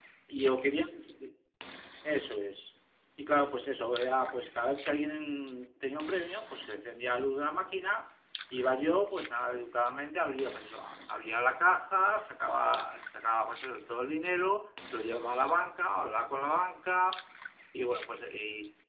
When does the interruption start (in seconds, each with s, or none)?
none